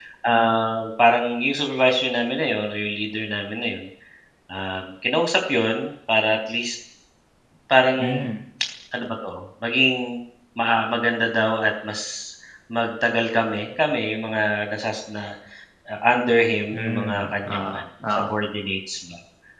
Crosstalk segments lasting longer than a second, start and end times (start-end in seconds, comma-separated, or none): 16.7-18.3